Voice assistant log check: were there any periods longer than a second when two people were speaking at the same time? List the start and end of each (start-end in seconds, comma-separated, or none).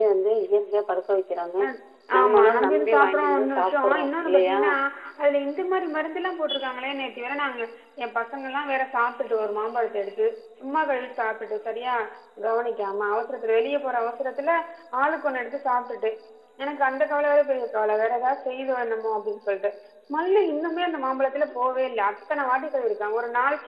2.2-4.0